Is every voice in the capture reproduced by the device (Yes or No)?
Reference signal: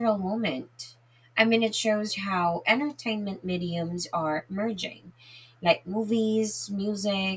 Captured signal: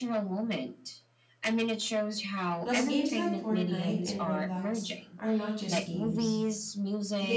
No